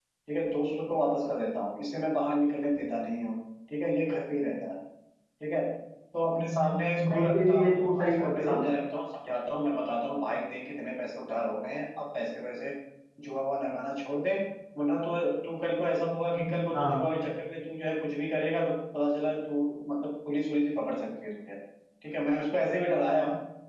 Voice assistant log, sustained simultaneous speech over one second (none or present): present